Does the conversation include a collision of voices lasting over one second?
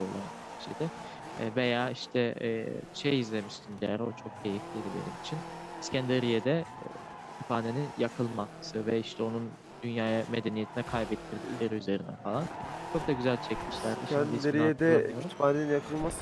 Yes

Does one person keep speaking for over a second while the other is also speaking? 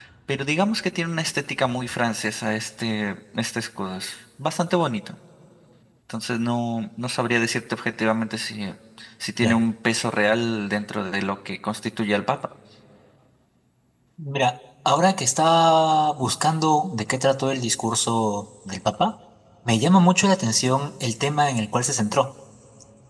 No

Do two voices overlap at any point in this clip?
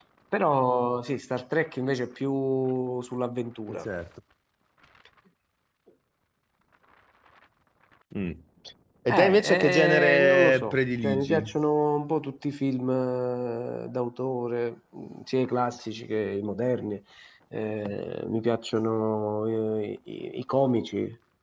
Yes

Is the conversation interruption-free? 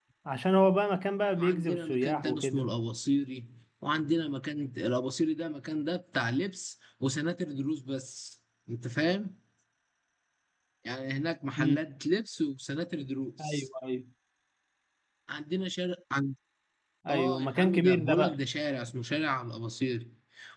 No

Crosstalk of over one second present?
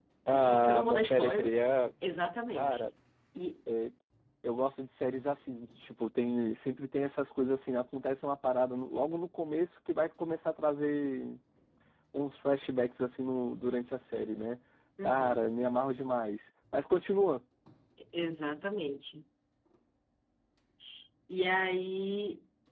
Yes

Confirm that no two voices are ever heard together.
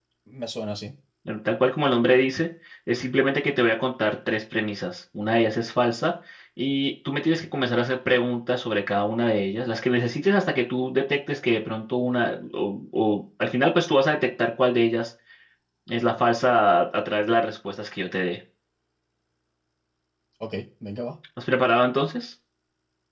Yes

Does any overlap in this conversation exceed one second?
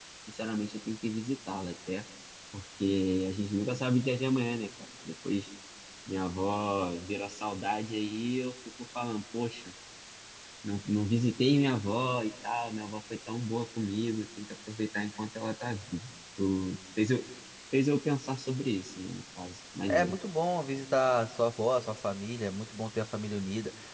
No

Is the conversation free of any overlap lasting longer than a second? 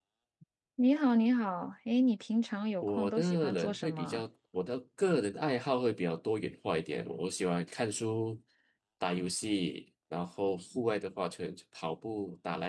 No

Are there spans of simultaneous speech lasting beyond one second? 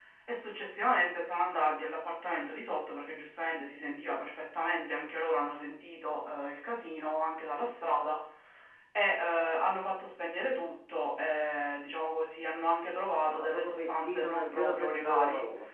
Yes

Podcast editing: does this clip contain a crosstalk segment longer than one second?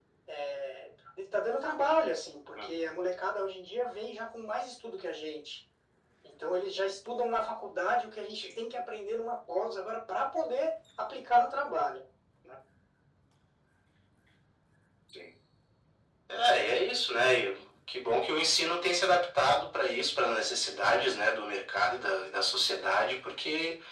No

